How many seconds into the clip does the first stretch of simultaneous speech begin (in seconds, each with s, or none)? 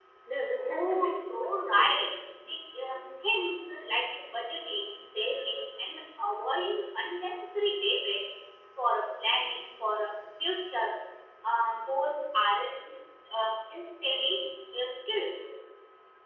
0.8 s